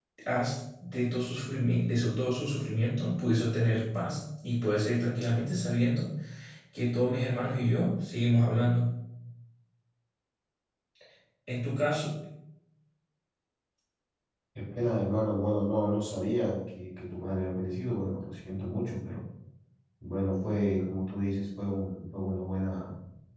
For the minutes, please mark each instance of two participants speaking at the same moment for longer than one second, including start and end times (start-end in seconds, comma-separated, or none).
none